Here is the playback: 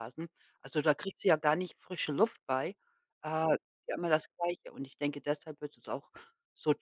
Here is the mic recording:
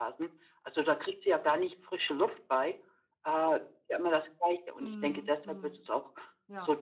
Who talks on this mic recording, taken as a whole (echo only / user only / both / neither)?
both